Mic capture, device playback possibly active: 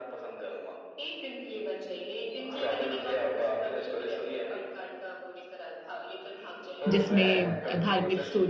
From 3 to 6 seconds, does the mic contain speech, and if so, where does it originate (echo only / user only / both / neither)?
echo only